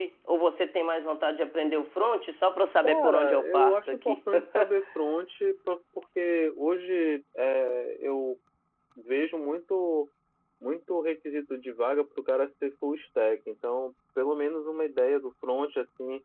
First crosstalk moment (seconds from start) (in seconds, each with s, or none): 2.8 s